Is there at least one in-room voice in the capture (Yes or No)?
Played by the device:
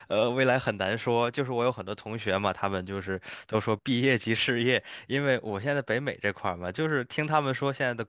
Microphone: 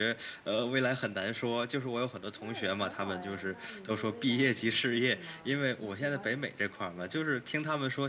Yes